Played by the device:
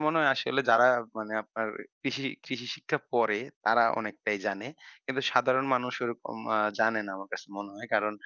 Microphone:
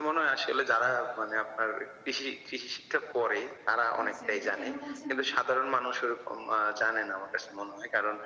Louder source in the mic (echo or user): echo